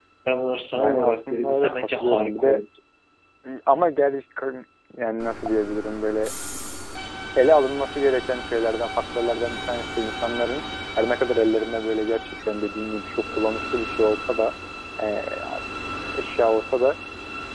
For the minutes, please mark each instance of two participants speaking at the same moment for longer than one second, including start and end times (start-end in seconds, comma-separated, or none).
0.7-2.6